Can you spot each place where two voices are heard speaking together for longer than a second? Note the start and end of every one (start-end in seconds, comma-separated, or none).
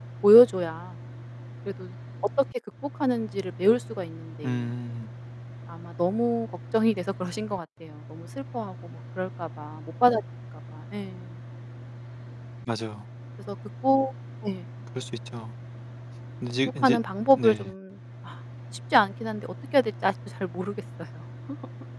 none